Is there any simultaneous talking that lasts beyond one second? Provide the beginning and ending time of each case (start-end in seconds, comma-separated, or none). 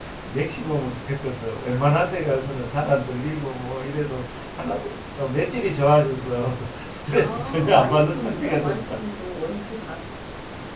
7.2-9.0